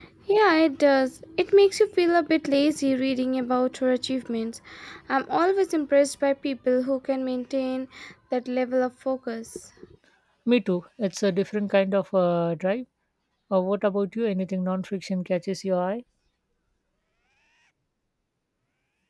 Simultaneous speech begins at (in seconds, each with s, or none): none